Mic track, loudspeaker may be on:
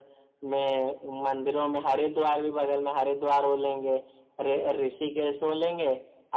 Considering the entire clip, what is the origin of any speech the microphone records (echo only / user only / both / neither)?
echo only